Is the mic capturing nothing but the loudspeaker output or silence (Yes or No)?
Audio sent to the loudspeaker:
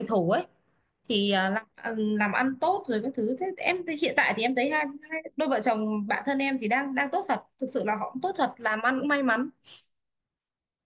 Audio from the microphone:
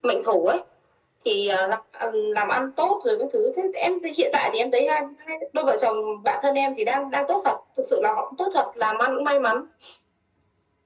Yes